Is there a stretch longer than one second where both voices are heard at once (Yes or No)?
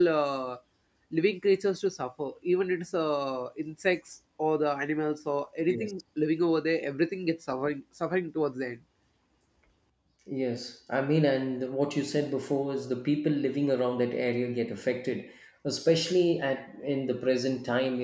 No